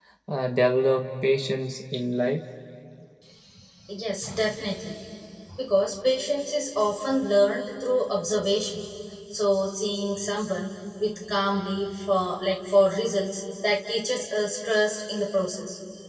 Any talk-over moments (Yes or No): No